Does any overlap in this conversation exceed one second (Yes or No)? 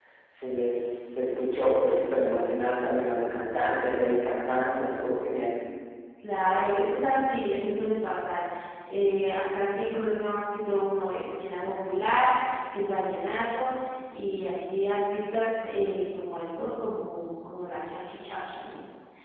No